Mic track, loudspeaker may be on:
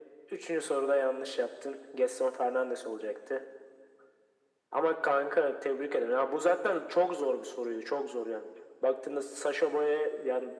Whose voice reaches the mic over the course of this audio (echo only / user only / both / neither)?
echo only